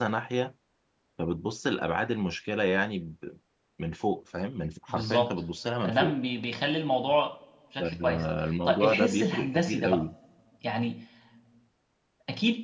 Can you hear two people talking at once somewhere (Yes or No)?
Yes